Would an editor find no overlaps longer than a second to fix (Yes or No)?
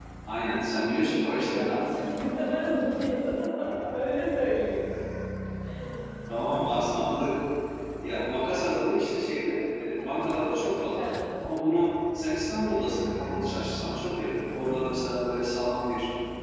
Yes